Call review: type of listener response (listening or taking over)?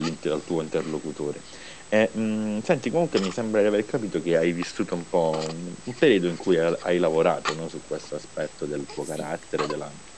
listening